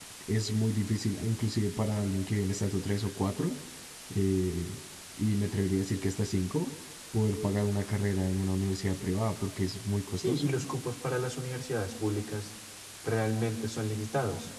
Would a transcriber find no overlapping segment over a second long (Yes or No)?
Yes